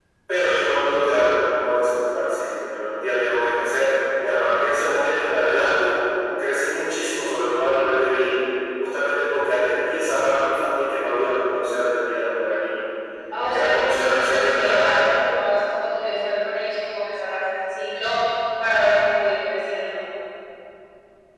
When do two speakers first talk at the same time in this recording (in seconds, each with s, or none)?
13.5 s